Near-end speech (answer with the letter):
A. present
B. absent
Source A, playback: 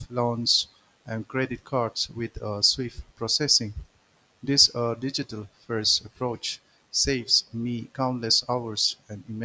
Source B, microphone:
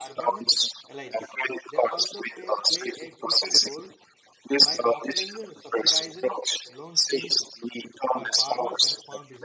A